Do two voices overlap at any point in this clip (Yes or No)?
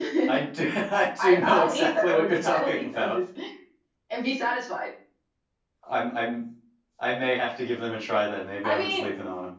Yes